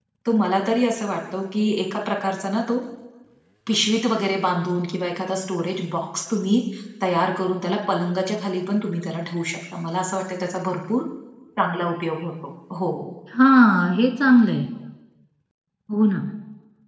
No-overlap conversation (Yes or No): Yes